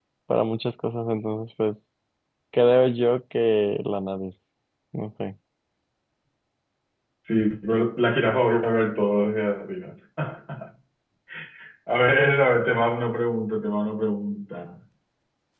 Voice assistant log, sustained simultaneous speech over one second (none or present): none